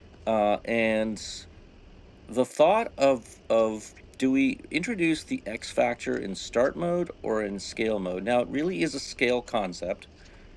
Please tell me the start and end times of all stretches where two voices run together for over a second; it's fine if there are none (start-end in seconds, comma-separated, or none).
none